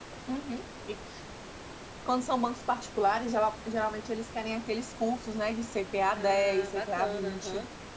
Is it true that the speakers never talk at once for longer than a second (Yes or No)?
No